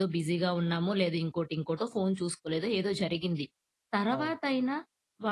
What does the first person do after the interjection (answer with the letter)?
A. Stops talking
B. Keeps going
B